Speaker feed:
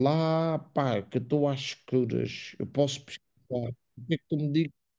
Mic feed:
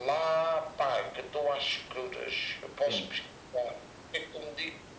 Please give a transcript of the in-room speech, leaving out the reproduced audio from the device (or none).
Sim,